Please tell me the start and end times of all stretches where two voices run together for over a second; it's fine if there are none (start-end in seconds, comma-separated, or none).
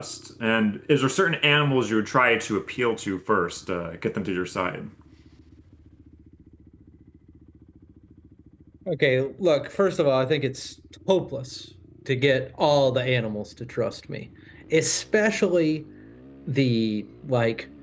none